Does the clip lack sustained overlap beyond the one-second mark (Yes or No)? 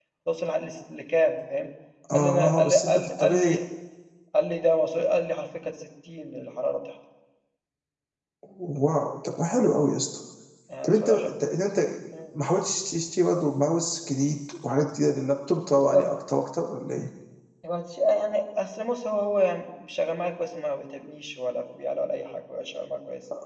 No